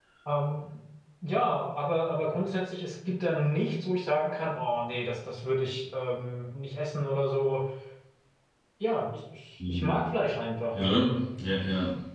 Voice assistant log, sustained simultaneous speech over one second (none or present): none